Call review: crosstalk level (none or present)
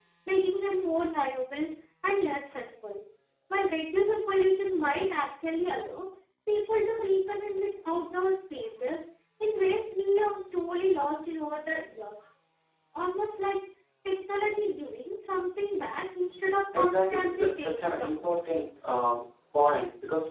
present